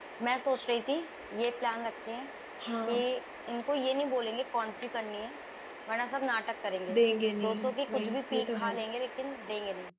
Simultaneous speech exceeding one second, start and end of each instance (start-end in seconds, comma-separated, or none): 7.4-8.7